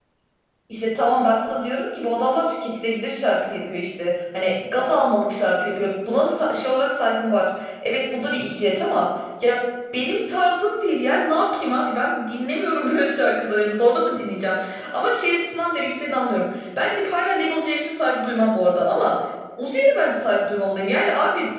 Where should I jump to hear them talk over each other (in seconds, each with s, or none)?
none